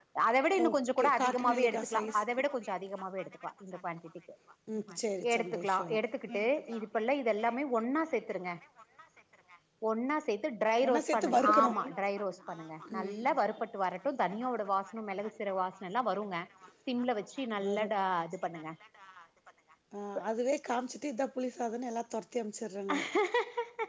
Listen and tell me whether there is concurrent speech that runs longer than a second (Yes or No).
Yes